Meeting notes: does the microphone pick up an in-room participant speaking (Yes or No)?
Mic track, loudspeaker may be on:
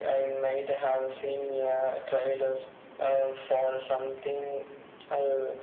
No